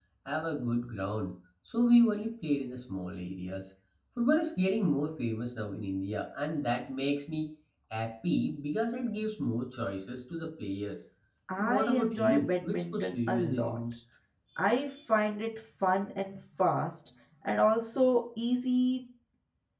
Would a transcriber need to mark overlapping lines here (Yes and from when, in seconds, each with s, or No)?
Yes, from 11.6 s